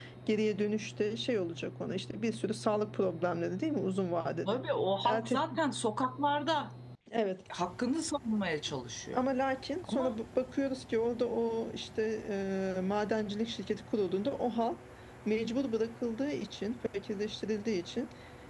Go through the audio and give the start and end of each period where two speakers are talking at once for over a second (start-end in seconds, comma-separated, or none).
none